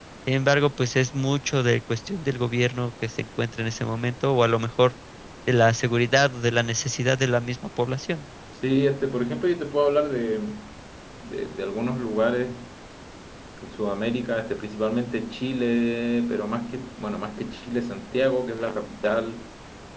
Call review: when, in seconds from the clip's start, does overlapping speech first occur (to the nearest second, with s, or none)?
none